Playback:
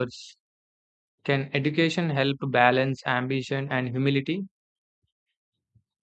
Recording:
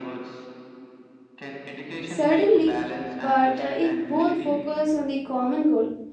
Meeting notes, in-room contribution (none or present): present